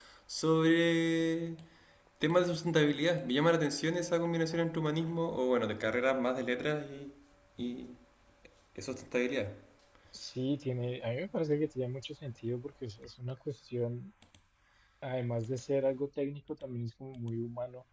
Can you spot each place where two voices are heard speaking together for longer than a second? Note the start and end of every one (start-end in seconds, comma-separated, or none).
none